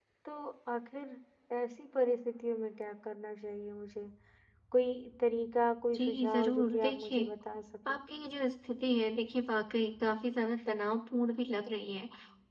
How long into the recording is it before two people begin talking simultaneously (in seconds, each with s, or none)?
5.9 s